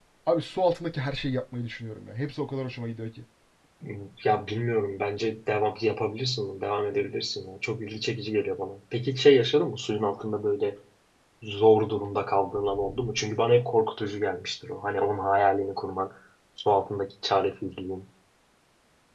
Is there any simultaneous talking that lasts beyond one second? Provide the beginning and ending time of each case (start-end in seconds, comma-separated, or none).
none